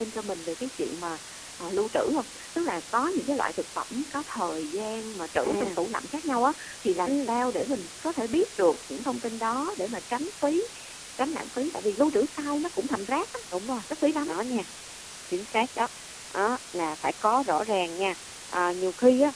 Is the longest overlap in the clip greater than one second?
No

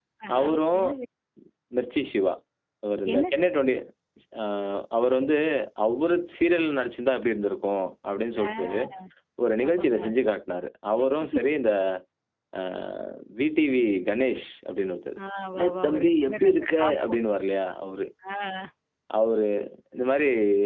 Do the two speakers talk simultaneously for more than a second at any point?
Yes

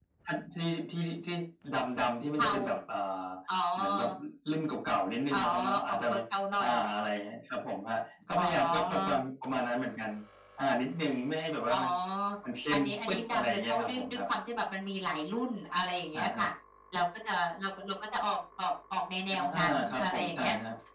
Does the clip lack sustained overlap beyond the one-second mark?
No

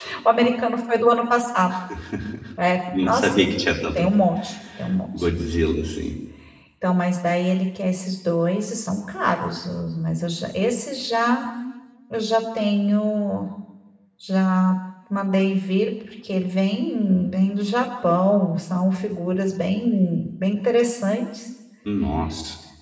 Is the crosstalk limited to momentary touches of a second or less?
Yes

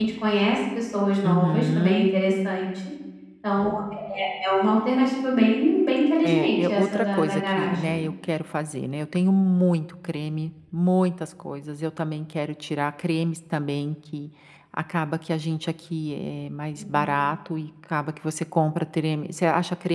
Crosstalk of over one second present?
Yes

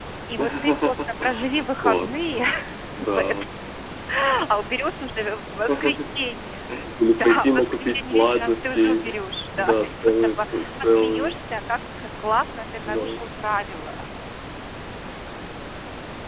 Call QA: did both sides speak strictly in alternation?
No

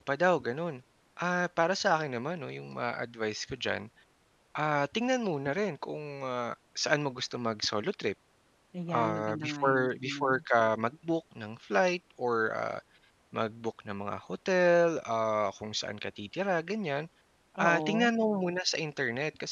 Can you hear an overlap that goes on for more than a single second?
Yes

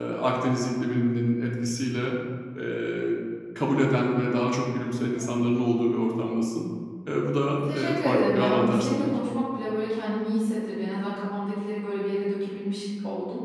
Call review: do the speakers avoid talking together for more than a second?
No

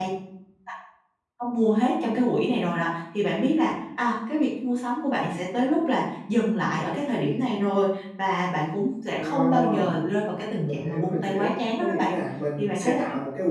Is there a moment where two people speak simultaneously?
Yes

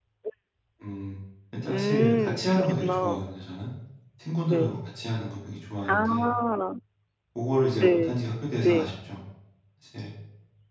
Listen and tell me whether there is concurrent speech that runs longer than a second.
Yes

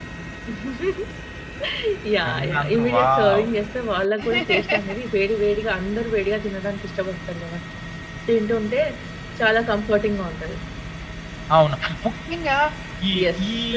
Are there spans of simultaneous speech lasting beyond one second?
Yes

